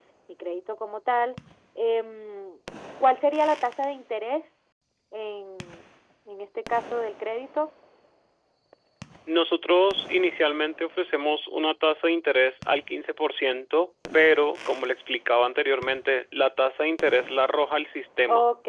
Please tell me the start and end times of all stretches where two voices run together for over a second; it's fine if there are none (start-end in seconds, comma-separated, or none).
none